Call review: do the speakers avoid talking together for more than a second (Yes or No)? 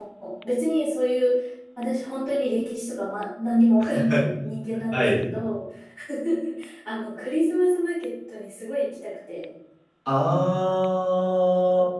Yes